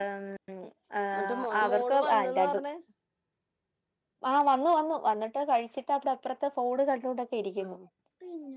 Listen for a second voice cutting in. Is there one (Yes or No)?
Yes